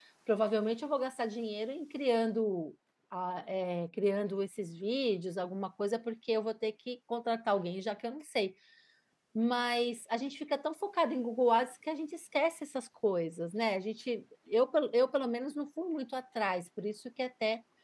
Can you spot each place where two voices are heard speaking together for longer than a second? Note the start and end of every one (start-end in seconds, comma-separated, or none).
none